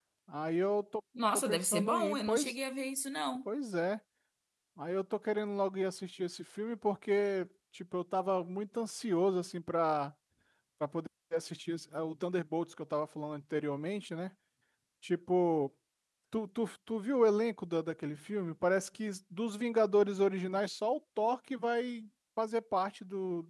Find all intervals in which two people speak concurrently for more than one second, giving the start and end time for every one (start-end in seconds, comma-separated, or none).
1.3-2.5